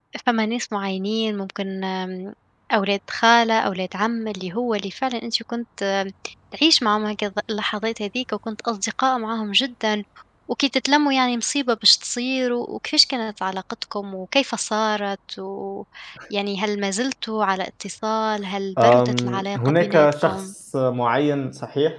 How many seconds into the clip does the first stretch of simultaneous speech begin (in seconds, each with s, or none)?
18.8 s